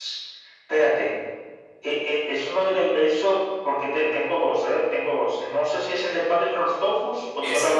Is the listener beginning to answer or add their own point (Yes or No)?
No